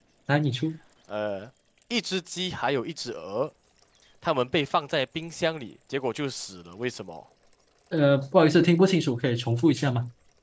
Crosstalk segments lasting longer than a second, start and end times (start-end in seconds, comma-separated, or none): none